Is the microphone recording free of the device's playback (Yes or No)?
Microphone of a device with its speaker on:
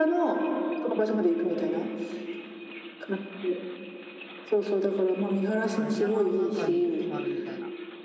No